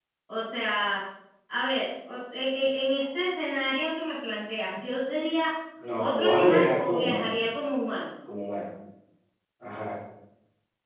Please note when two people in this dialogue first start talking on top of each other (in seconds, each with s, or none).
6.0 s